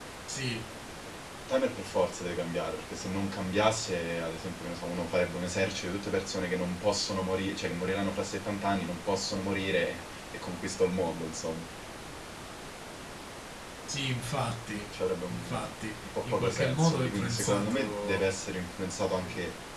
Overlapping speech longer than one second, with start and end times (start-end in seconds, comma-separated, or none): 16.1-18.2